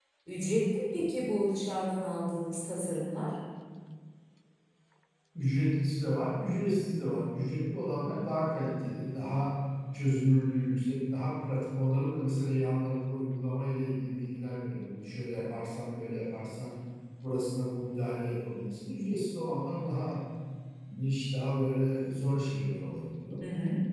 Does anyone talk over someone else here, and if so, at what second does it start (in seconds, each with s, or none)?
none